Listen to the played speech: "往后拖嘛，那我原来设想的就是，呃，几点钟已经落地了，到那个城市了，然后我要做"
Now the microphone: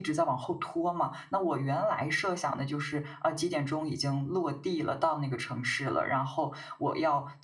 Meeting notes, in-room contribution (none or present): none